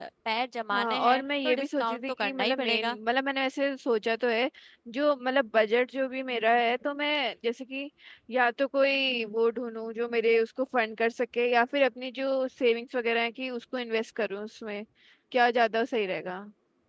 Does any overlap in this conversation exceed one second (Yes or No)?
Yes